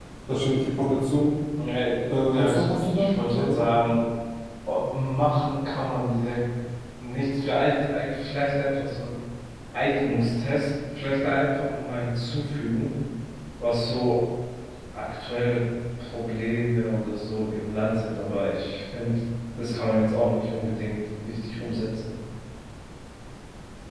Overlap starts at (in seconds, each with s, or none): 2.1 s